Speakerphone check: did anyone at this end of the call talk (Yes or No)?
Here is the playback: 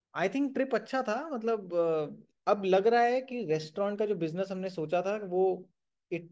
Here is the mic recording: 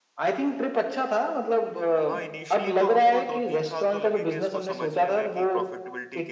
Yes